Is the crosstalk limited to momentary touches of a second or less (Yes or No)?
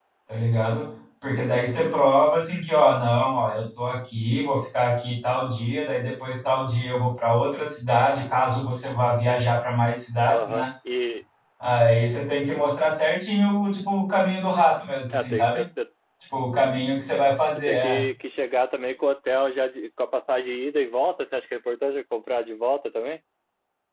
Yes